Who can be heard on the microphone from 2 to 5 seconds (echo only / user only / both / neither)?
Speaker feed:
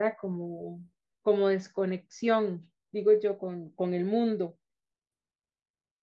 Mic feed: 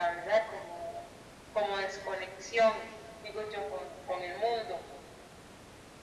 echo only